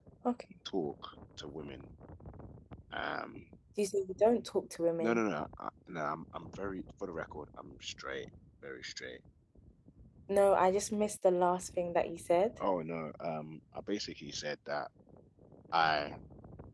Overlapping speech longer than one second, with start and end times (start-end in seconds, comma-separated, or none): none